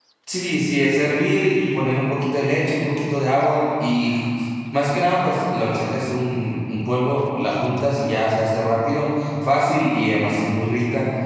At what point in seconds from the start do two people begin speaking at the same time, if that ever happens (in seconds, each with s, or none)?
none